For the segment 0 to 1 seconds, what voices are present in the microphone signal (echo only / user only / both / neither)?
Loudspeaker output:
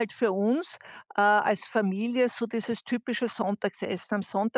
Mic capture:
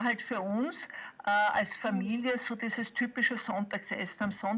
echo only